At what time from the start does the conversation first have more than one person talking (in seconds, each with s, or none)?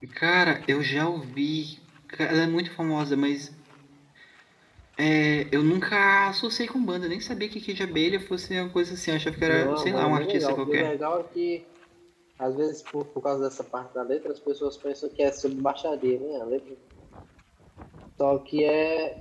9.5 s